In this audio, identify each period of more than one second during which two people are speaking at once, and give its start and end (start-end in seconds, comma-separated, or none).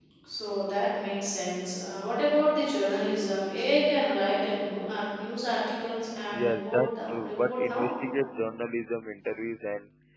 6.3-7.9